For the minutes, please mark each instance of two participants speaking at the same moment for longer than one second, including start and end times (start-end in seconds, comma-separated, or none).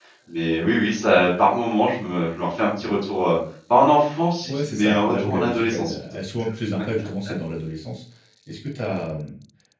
4.5-5.9